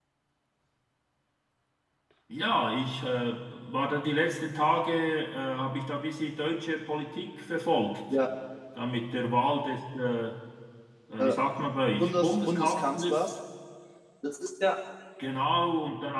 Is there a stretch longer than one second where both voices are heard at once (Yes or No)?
Yes